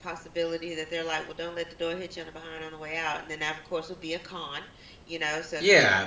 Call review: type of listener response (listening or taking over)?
taking over